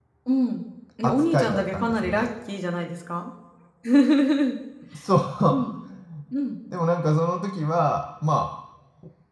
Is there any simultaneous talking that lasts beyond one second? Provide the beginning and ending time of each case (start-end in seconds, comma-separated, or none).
1.0-2.3